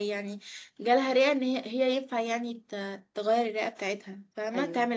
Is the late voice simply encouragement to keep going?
No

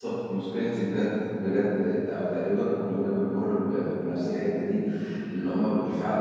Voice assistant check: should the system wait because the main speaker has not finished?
Yes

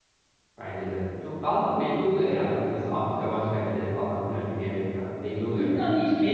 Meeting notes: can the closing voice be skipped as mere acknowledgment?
No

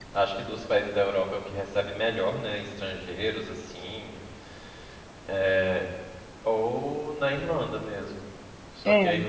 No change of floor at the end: Yes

